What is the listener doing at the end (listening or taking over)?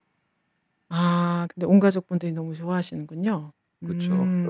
taking over